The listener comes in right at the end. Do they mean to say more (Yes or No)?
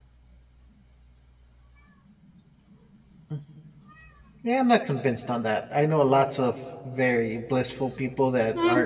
Yes